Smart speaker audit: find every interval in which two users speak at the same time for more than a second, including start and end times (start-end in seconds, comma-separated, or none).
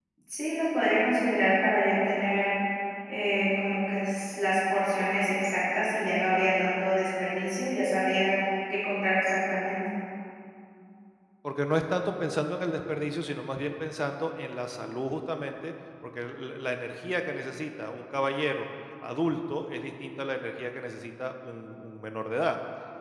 none